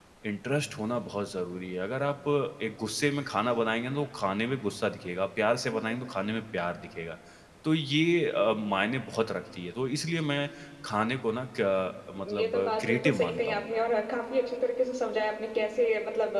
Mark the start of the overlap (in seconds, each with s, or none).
12.2 s